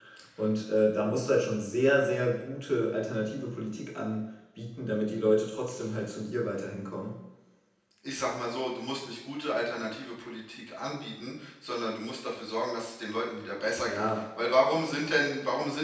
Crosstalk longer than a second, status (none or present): none